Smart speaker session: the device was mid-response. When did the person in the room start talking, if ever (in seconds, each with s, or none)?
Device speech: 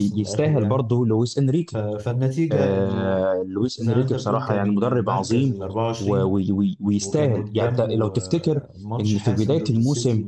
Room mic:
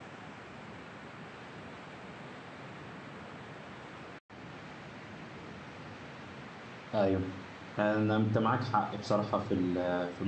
6.9 s